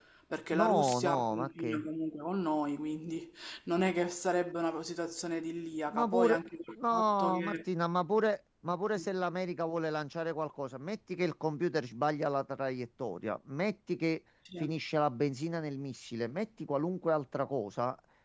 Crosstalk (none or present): present